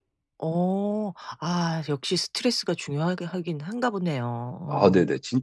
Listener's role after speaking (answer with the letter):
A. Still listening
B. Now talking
B